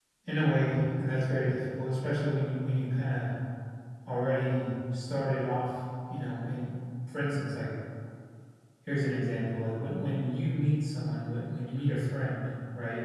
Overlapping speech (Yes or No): No